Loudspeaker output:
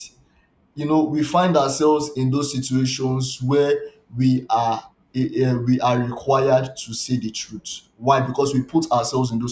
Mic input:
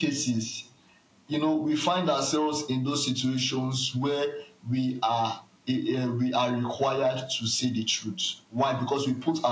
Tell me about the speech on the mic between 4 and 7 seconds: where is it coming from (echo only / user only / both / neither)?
echo only